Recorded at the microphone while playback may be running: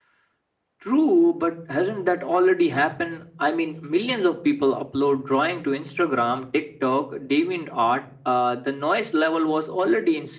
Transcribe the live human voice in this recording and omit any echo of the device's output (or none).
none